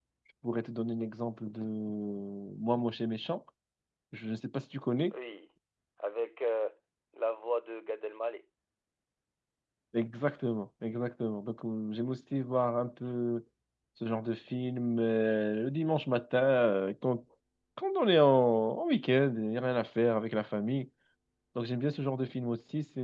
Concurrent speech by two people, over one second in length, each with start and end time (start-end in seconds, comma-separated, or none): none